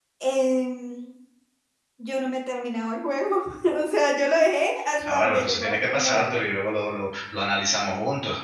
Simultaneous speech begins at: 5.0 s

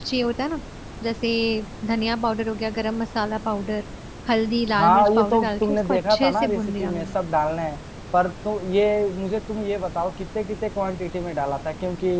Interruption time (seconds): 4.8 s

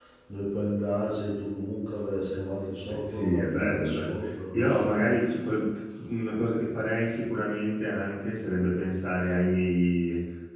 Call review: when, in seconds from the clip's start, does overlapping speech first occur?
2.9 s

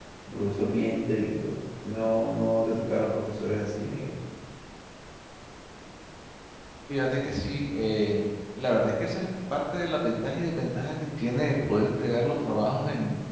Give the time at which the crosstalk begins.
none

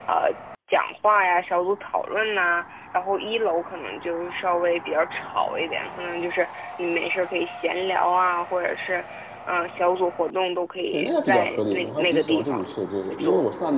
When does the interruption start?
10.9 s

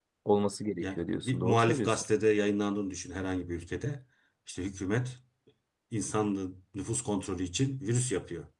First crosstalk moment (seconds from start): 0.8 s

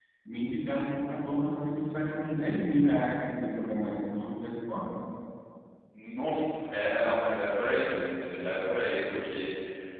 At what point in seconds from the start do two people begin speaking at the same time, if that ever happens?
none

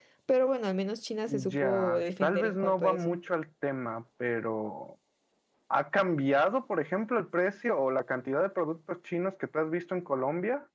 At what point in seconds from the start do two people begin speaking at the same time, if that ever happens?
1.3 s

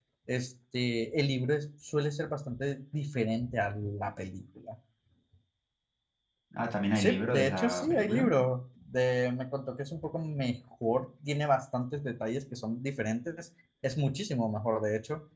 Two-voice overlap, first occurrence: 7.0 s

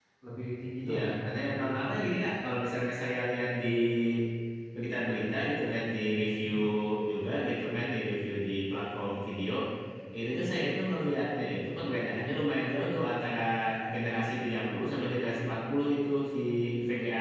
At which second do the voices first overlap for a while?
0.8 s

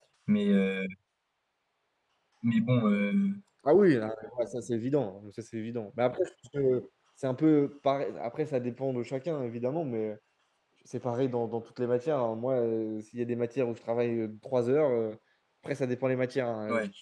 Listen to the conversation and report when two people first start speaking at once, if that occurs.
none

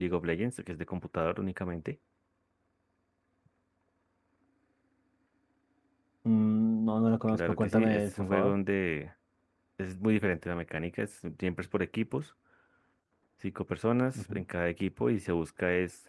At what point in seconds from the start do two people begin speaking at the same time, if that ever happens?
7.3 s

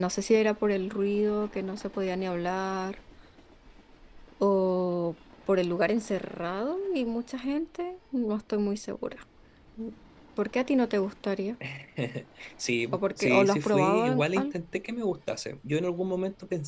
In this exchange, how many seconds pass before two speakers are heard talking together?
12.9 s

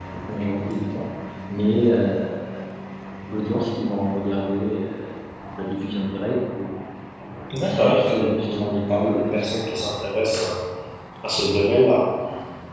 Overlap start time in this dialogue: 7.6 s

